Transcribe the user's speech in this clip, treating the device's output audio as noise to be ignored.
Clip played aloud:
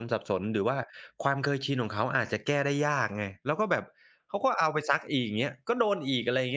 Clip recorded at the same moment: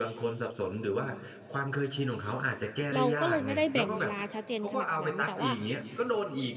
เราก็เลยไม่ได้แบ่งเวลาชัดเจนขนาดนั้นแต่ว่า

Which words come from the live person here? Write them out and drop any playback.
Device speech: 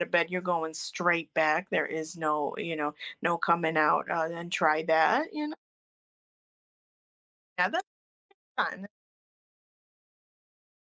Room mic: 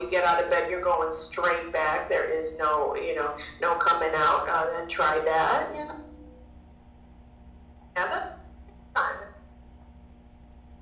none

